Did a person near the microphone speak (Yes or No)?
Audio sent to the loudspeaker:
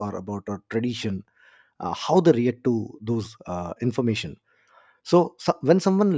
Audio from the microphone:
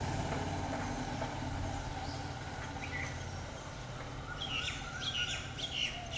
No